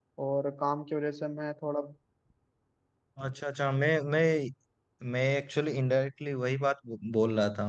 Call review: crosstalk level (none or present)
none